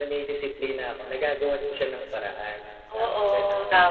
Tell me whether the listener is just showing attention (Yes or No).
No